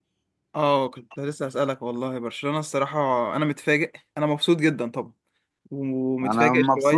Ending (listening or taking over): taking over